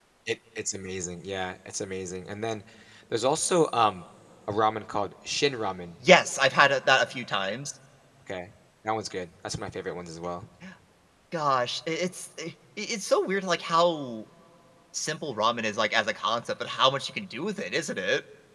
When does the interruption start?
none

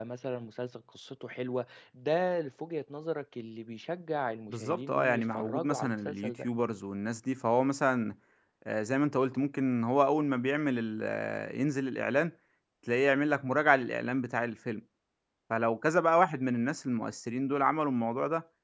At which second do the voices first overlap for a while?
4.5 s

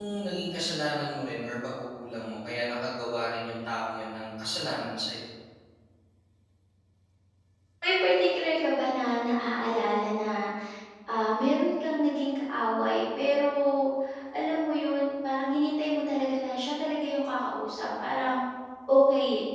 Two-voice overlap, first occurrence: none

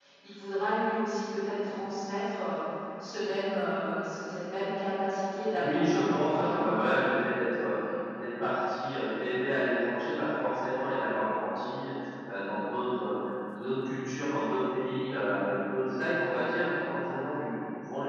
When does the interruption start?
5.5 s

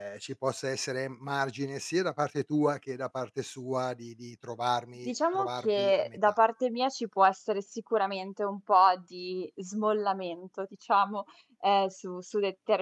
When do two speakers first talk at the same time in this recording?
5.1 s

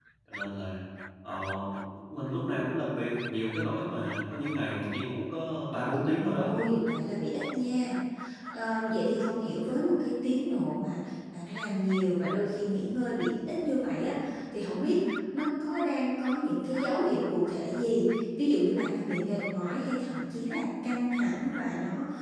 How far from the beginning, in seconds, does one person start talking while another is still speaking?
none

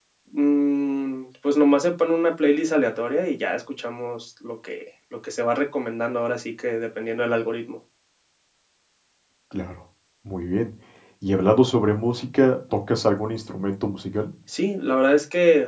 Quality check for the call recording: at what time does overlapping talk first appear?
none

